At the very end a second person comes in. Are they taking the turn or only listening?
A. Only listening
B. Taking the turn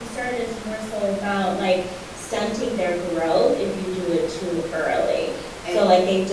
A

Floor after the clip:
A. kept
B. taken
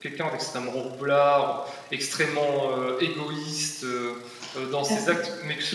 B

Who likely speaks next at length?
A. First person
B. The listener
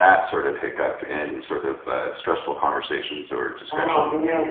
B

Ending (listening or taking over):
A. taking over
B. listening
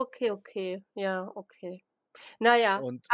B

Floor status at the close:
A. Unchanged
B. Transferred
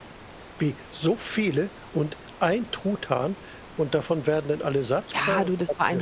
B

